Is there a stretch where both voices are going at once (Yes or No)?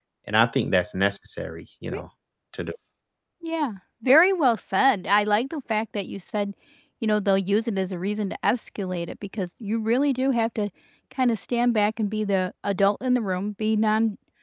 No